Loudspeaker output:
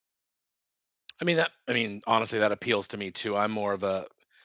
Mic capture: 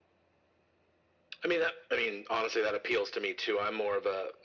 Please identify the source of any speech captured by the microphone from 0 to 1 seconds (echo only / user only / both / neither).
neither